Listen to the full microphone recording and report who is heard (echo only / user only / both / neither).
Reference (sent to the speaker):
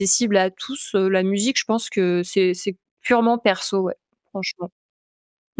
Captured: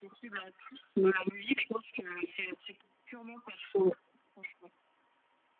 echo only